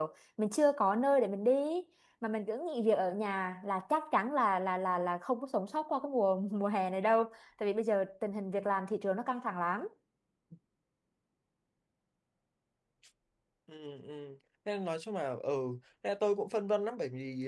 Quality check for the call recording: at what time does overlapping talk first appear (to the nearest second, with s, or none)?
none